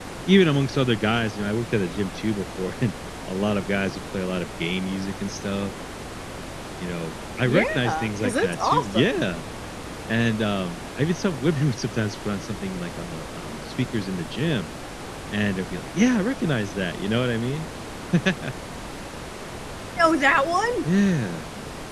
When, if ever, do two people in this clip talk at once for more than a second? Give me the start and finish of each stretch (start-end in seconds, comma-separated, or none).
7.4-9.2